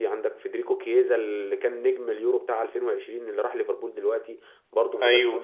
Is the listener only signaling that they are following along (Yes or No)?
Yes